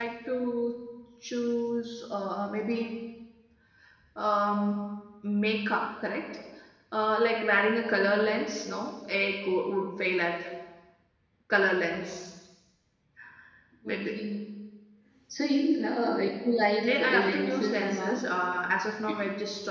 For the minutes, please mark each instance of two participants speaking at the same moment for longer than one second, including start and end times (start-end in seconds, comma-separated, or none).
16.8-18.2